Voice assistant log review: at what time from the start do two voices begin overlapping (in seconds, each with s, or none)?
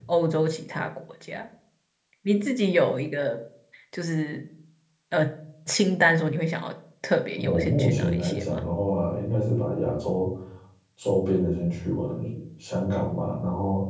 7.4 s